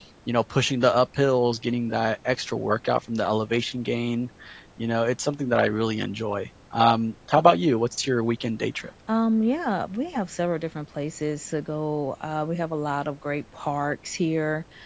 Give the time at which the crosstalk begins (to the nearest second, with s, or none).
none